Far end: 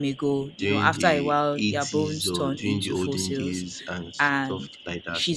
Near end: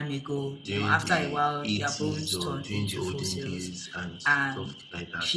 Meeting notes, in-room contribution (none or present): none